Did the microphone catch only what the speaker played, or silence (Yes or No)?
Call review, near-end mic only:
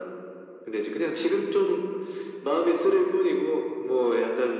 Yes